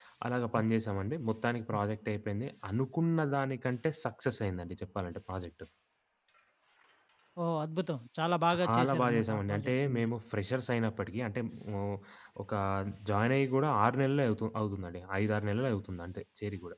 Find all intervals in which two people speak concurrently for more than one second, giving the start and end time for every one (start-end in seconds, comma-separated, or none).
8.5-10.1